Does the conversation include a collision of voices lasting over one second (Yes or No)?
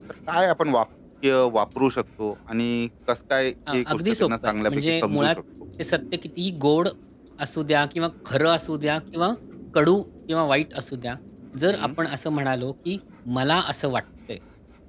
Yes